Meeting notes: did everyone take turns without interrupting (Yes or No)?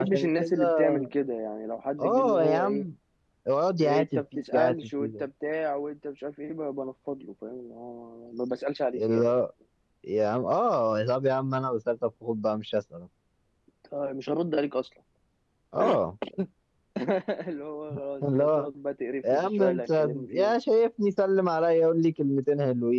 No